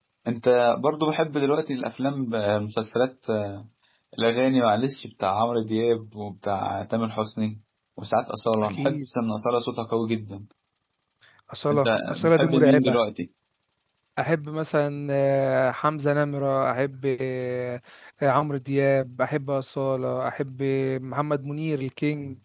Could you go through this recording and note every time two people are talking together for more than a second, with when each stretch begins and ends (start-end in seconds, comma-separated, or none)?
11.7-13.0